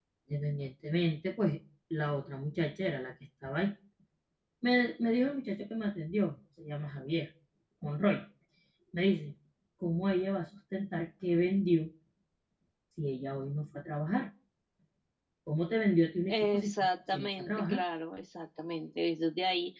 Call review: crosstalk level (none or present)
present